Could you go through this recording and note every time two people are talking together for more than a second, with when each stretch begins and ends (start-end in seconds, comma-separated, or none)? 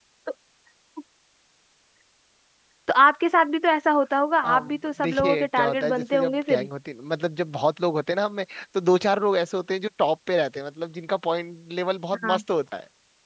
4.5-6.7